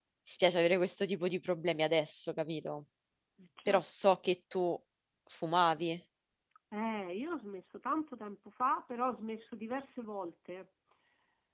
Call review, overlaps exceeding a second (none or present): none